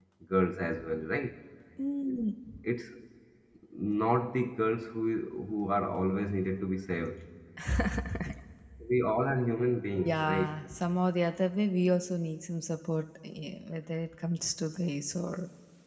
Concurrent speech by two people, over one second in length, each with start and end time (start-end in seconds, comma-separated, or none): none